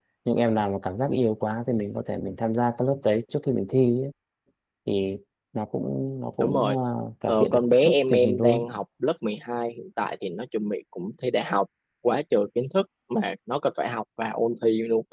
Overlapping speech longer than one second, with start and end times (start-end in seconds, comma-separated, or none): 7.3-8.6